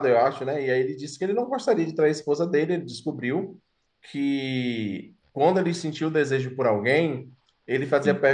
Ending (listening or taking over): listening